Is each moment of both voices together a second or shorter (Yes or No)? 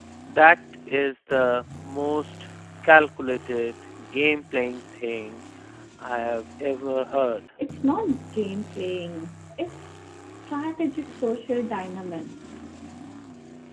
Yes